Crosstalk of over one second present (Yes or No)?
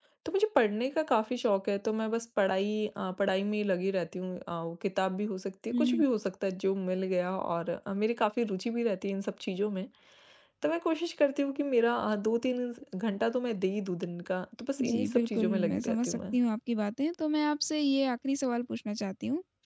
Yes